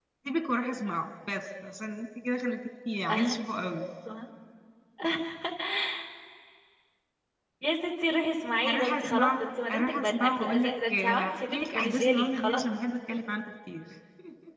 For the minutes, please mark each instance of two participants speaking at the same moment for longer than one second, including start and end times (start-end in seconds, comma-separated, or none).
8.6-12.6